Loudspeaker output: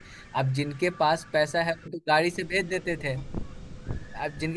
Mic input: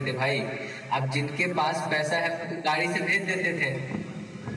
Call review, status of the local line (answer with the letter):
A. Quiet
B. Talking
A